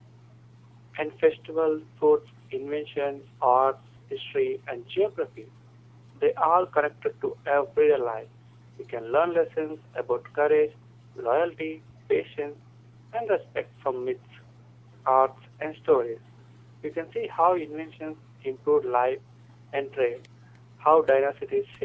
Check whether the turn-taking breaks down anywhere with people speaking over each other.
No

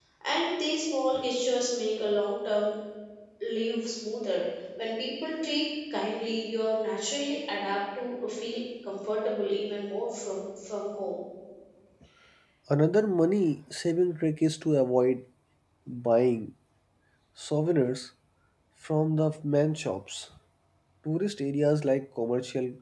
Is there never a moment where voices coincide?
Yes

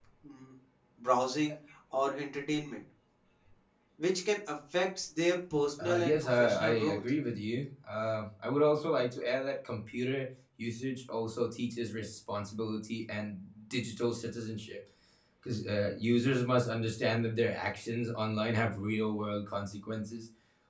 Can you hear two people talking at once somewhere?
Yes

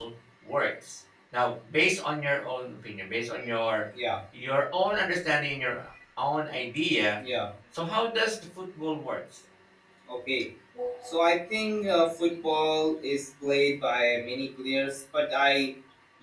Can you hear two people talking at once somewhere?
No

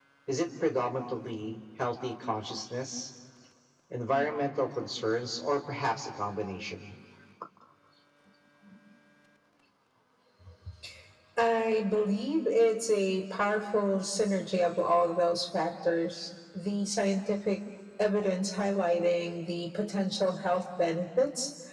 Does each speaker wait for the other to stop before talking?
Yes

